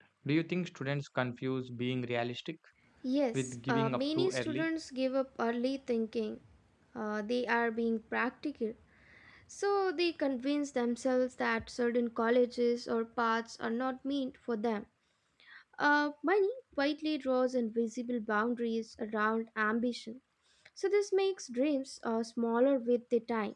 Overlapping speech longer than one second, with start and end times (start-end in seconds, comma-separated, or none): 3.3-4.7